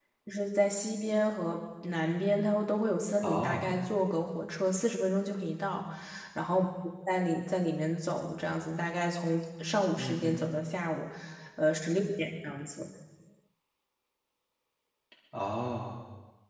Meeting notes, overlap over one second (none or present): none